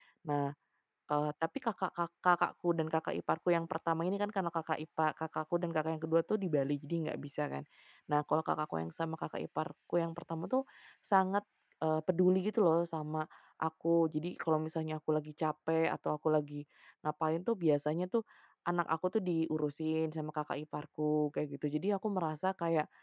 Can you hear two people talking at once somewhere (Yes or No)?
No